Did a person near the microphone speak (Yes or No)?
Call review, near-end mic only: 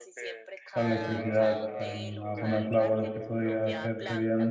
Yes